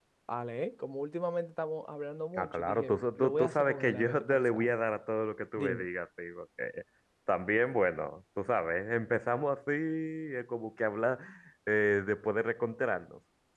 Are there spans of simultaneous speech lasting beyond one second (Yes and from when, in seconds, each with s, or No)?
Yes, from 2.4 s